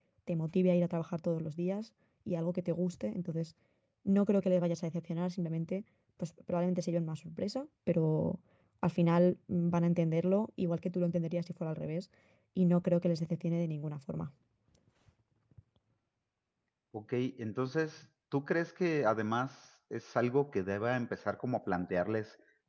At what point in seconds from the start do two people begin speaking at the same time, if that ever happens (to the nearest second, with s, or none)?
none